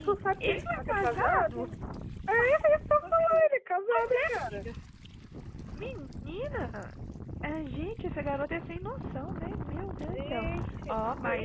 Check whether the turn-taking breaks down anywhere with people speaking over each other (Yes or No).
Yes